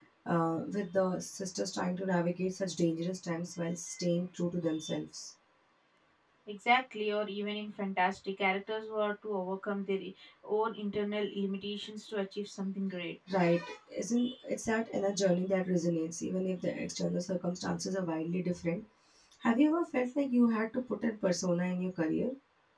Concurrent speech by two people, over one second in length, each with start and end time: none

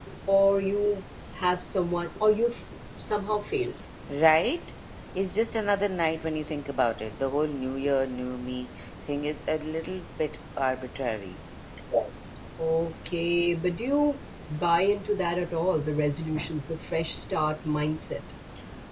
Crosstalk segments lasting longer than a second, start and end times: none

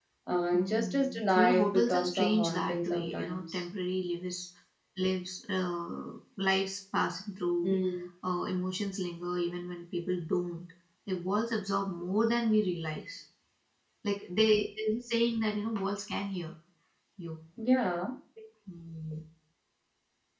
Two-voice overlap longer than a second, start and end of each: 0.5-3.6

